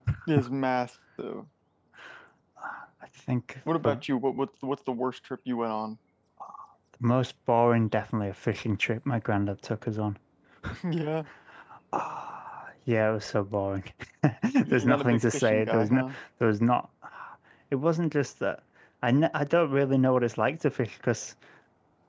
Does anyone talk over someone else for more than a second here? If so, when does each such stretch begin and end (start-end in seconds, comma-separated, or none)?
14.7-16.2